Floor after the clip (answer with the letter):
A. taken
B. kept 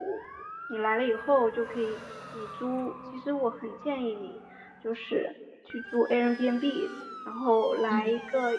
B